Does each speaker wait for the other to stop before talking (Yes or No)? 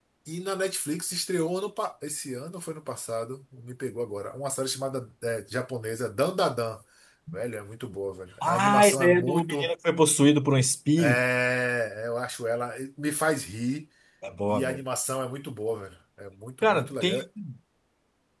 No